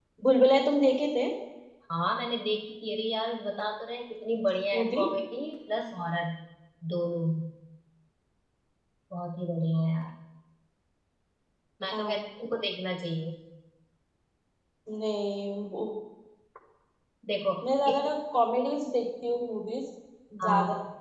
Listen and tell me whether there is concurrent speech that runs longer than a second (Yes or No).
No